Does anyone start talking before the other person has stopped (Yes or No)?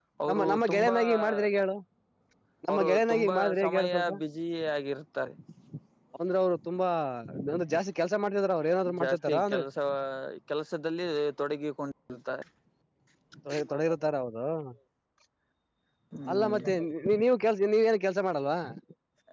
Yes